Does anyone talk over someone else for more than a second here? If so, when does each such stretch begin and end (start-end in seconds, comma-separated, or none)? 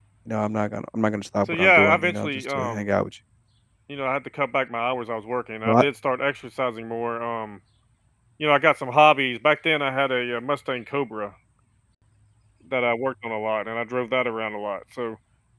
1.5-2.8